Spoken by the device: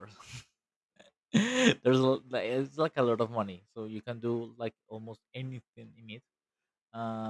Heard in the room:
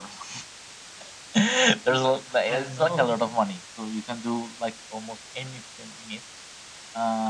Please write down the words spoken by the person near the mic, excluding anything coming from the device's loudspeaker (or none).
oosh, i don't know